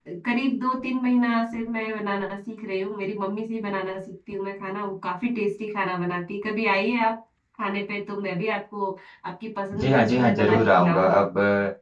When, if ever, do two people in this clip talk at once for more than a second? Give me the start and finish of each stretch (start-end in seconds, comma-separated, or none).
9.8-11.2